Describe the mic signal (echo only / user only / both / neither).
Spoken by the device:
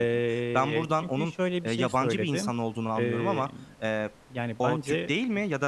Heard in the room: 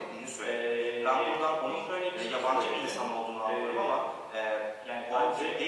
echo only